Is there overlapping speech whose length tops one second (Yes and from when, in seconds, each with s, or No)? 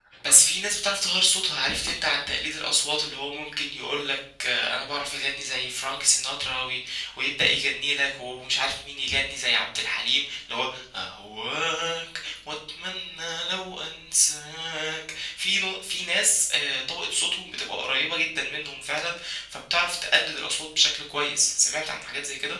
No